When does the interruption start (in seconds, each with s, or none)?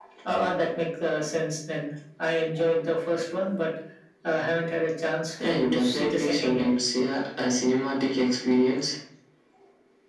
5.4 s